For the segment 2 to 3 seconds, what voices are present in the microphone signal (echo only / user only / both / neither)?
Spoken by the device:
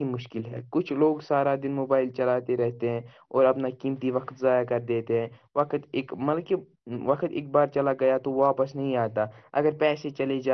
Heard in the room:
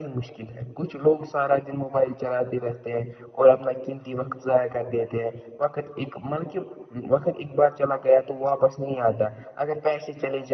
echo only